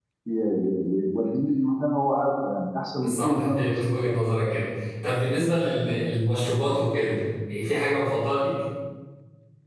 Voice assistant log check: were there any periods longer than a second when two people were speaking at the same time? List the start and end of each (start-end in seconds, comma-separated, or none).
3.0-4.3